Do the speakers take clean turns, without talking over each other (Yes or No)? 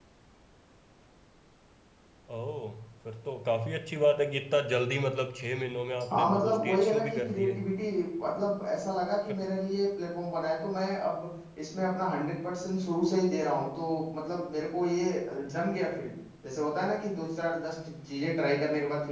No